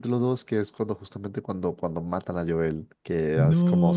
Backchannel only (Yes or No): Yes